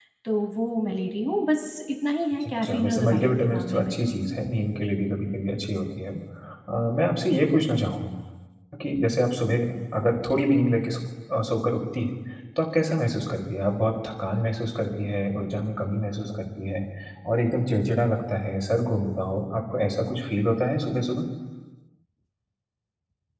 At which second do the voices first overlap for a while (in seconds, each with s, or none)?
2.4 s